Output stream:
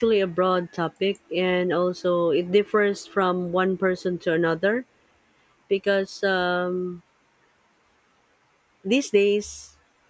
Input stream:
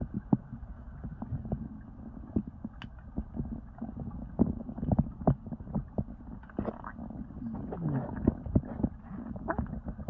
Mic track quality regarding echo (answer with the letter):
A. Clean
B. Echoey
A